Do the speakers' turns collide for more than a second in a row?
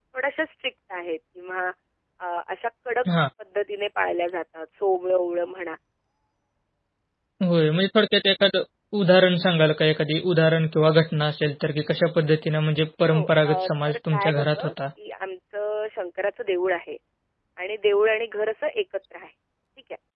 Yes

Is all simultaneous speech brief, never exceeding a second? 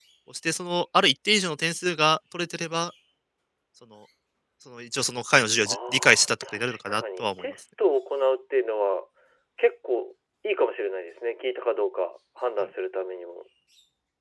No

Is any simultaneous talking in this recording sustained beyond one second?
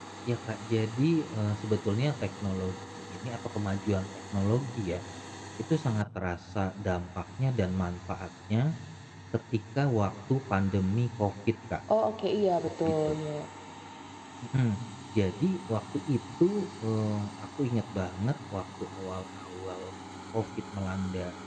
No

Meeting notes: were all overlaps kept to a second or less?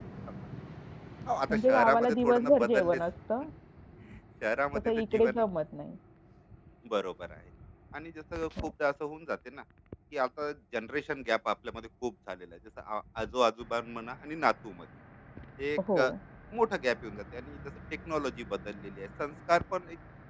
No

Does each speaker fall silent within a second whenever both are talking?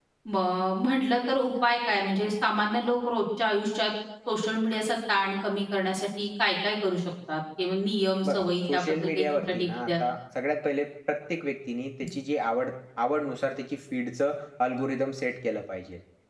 No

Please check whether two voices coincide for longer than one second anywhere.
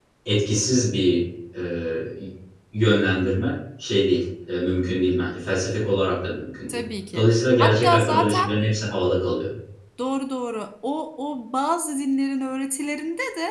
Yes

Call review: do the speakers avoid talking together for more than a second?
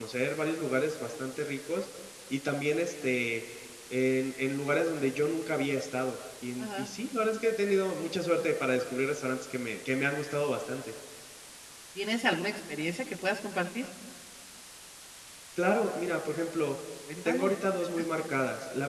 Yes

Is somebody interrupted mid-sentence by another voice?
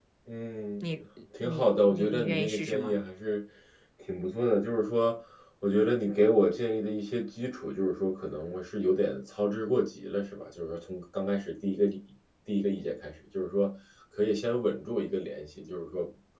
Yes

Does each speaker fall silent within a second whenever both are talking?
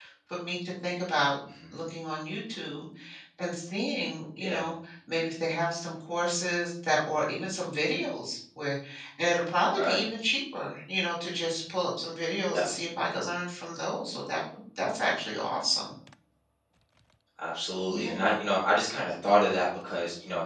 Yes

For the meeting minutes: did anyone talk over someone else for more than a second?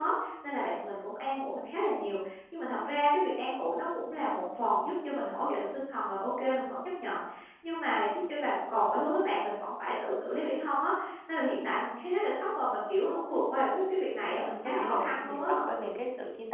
Yes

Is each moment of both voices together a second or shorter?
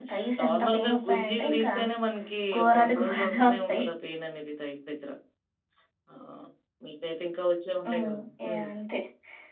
No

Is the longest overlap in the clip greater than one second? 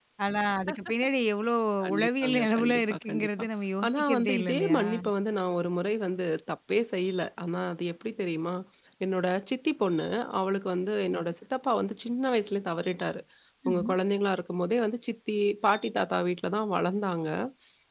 Yes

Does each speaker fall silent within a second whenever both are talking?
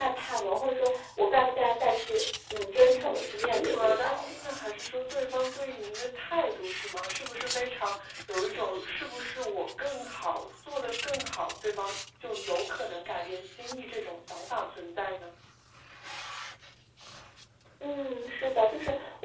No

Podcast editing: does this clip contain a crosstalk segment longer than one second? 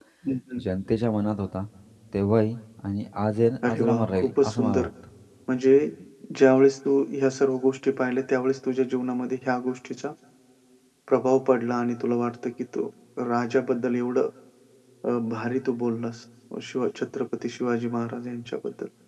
Yes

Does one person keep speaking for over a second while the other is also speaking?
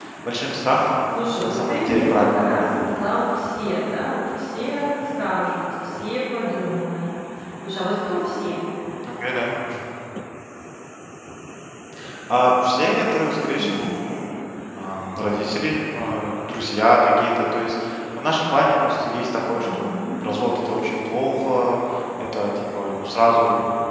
Yes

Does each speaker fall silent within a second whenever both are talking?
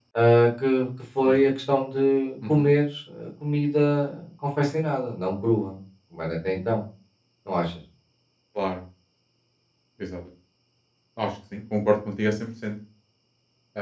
Yes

